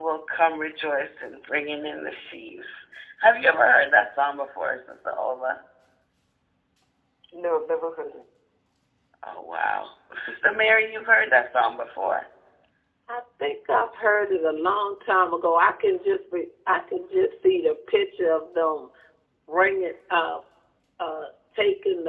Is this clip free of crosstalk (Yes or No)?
Yes